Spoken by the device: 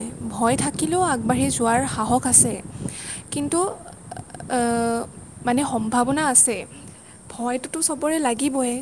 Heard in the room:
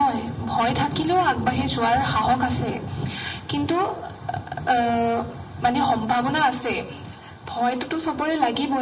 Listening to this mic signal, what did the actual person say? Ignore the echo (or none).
none